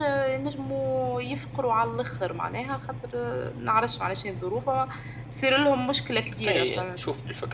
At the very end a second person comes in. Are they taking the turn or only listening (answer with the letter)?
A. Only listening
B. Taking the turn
B